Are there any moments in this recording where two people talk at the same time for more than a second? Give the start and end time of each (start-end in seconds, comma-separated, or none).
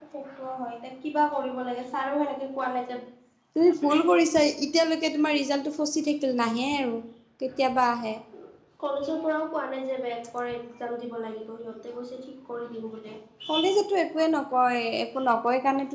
none